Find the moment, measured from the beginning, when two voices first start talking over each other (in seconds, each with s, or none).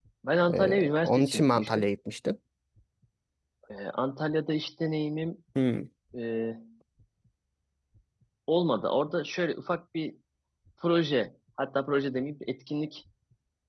0.5 s